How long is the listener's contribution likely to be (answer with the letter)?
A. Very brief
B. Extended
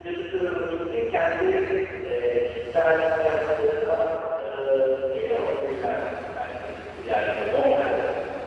B